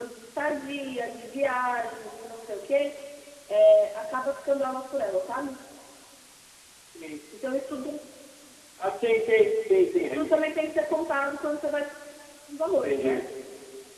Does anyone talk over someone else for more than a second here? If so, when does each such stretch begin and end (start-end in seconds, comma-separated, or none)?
none